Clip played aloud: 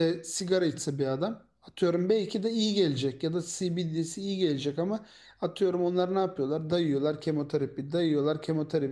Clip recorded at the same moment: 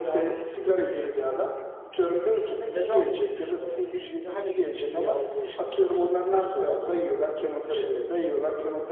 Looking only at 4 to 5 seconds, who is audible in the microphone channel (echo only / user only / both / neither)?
both